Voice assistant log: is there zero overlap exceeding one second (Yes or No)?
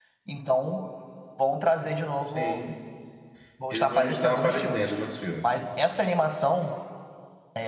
No